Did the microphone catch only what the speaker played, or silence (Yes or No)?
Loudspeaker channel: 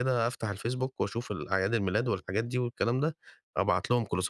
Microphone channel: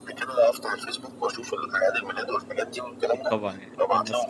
No